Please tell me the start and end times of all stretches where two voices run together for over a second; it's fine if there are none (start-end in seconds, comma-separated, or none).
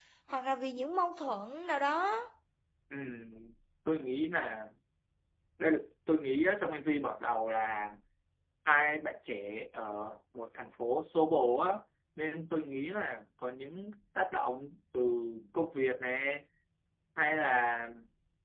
none